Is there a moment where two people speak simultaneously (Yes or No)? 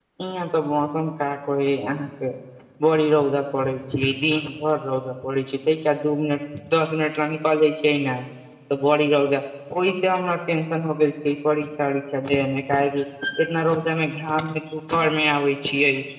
No